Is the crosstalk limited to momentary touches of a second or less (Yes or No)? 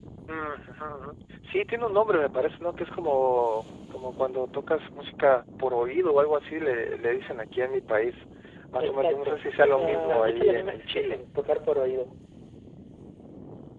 No